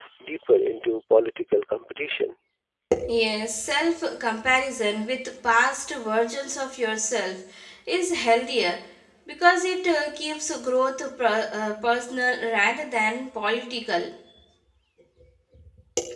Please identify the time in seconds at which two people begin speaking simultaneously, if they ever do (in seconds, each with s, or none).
none